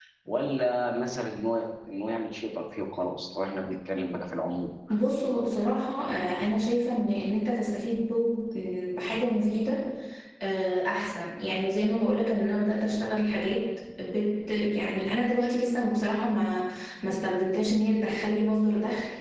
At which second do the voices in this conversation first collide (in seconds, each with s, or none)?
none